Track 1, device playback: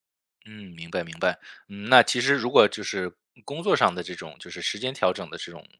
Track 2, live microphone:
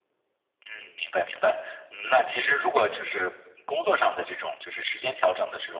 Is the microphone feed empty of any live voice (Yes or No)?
Yes